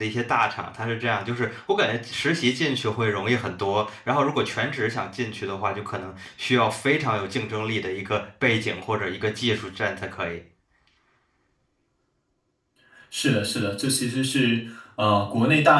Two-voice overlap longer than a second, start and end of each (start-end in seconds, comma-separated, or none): none